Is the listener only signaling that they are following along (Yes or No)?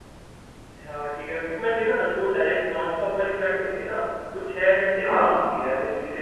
Yes